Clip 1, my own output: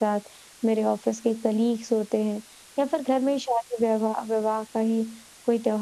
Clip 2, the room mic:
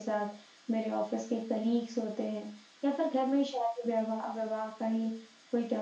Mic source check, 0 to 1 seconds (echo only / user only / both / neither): echo only